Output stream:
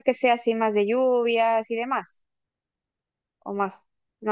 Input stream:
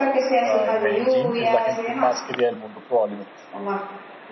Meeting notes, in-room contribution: present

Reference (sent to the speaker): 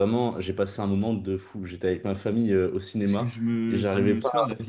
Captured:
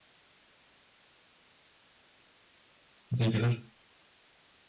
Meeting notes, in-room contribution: present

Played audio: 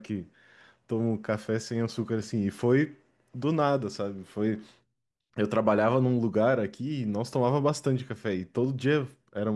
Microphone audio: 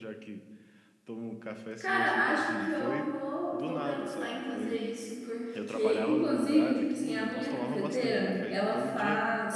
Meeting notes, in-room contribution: present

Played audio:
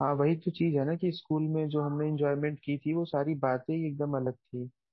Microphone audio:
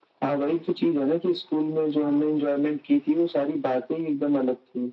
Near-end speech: none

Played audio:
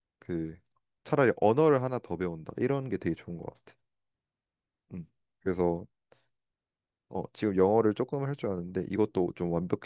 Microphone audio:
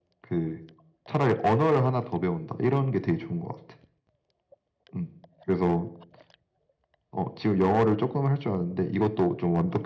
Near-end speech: none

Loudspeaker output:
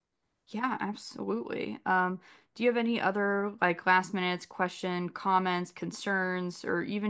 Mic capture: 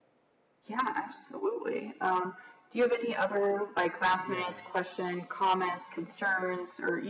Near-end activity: present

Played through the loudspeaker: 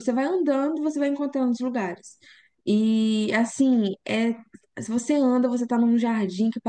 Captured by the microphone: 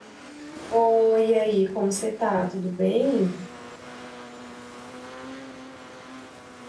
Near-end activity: present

